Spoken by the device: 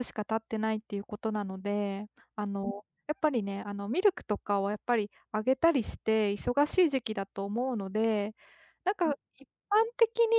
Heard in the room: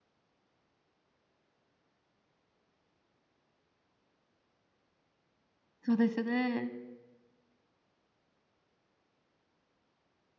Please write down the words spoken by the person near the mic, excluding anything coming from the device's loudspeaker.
そうですね。

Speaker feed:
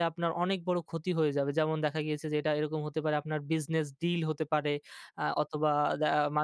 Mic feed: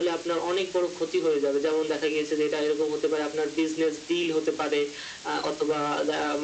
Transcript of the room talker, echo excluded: none

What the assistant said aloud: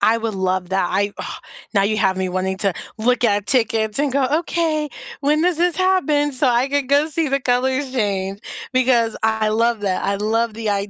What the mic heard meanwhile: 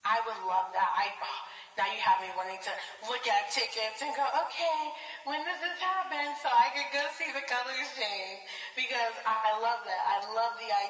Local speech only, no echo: none

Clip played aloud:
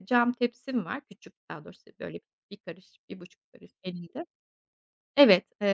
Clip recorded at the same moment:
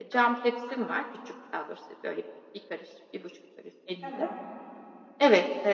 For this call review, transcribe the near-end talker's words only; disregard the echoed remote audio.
Tamam.

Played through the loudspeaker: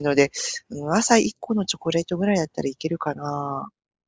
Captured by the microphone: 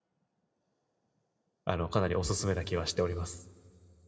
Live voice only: あの、かなりおすすめな気はしております。

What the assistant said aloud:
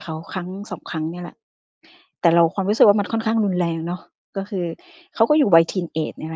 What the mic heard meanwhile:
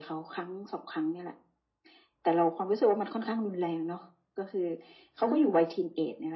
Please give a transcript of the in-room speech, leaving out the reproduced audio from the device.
อืม

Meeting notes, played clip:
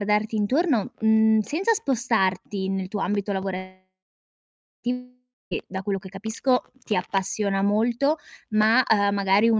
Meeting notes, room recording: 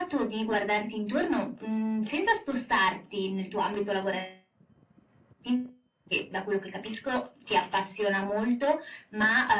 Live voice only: none

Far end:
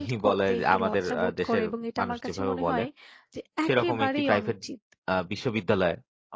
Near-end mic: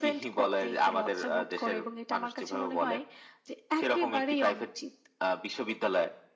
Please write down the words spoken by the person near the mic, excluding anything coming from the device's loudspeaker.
none

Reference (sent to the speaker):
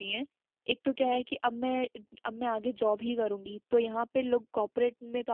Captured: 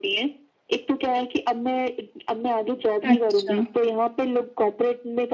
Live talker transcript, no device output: अच्छा।

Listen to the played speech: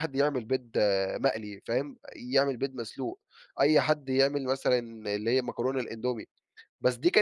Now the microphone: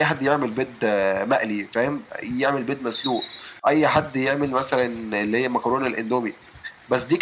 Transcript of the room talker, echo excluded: none

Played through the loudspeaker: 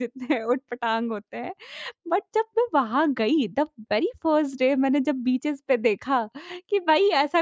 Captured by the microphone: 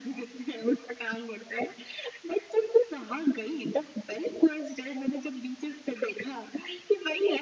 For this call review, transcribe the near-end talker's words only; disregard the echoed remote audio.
none

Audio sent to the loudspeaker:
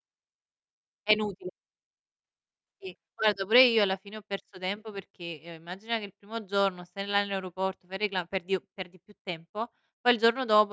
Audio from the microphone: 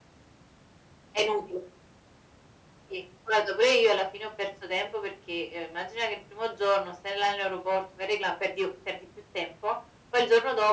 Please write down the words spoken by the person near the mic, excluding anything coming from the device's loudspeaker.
none

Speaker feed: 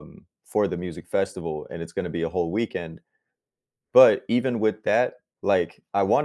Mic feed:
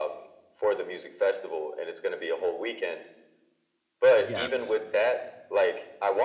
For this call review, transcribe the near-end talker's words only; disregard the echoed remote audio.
Yes.

